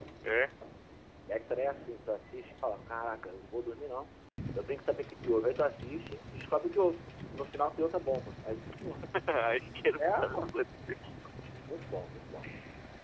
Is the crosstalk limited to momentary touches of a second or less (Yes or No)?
Yes